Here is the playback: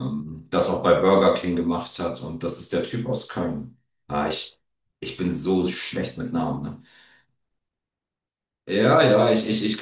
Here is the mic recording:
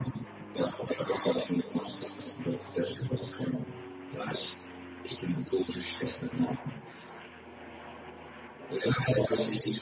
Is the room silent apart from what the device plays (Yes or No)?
Yes